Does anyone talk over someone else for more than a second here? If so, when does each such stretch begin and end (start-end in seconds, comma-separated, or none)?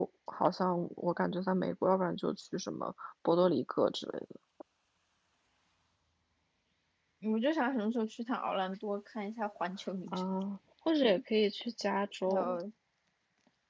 none